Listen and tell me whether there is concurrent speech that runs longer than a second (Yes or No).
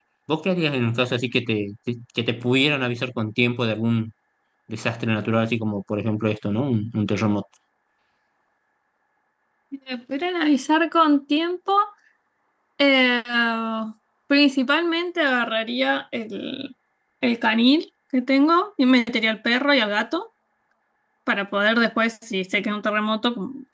No